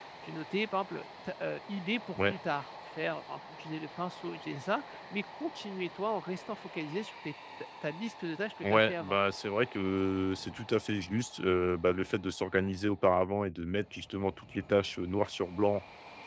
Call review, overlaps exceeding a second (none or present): none